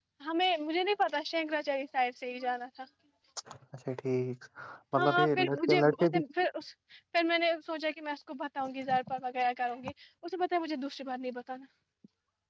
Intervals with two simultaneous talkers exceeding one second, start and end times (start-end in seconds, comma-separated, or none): 5.0-6.2